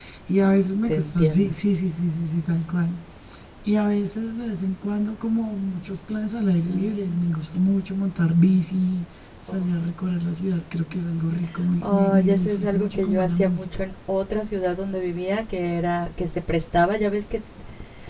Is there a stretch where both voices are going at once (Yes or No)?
Yes